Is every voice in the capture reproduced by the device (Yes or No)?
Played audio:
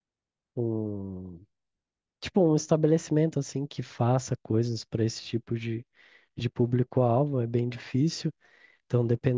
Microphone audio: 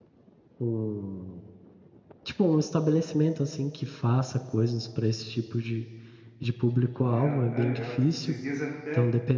No